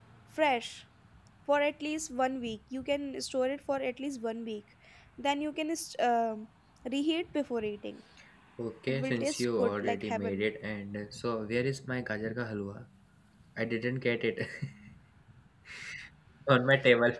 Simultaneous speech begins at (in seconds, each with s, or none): 8.9 s